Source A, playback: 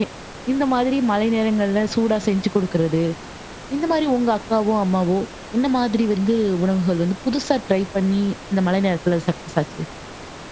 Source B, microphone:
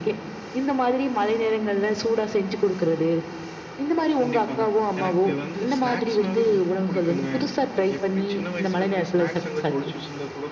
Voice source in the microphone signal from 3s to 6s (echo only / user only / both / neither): both